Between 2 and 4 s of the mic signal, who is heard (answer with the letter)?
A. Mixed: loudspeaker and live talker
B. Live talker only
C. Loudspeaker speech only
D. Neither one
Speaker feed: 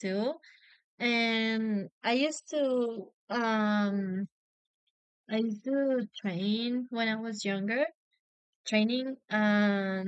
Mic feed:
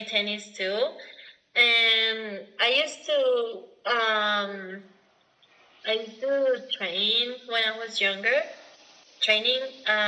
C